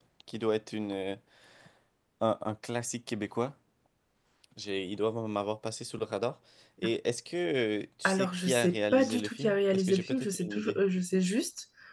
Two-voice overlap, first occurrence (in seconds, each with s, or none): 8.0 s